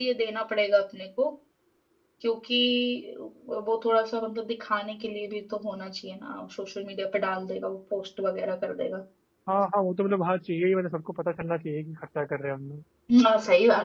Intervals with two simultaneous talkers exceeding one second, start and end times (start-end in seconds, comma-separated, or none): none